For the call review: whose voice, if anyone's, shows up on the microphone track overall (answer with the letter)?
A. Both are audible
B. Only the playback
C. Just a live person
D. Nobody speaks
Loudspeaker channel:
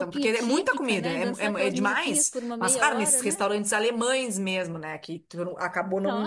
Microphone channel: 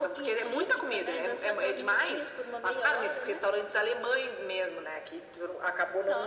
B